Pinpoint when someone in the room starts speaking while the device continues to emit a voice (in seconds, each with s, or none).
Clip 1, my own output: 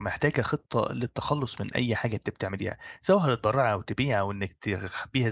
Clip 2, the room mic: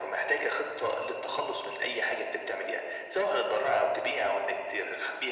none